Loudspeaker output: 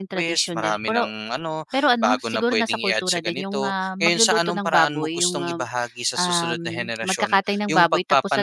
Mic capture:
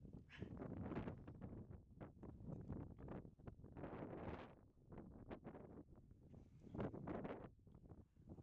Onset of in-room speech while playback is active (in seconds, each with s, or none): none